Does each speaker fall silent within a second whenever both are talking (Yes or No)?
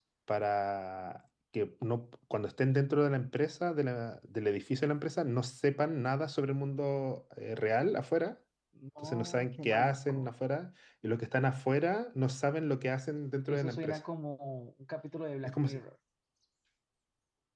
No